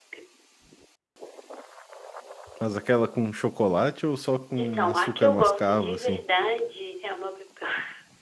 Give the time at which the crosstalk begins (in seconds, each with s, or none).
4.6 s